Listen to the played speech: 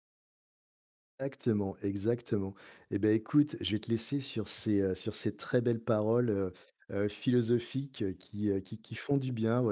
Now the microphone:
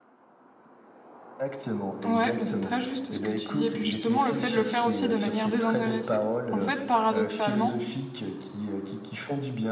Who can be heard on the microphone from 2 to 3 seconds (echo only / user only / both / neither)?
both